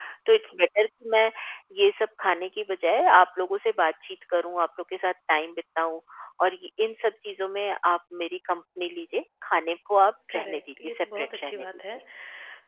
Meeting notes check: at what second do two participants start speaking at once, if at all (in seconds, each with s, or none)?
10.3 s